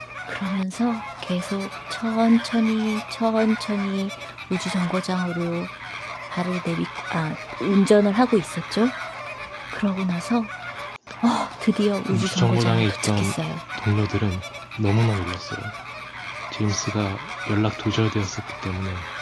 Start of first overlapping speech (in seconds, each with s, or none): 12.1 s